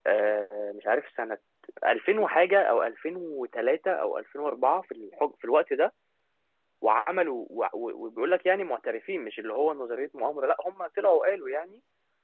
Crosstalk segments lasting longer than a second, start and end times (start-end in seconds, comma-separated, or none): none